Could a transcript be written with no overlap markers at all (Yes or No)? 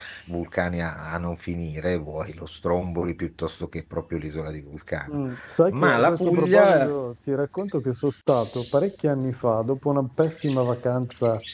No